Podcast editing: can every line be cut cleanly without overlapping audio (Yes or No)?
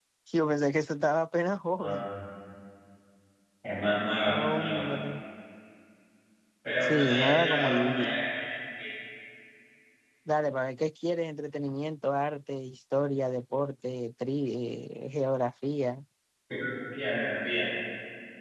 No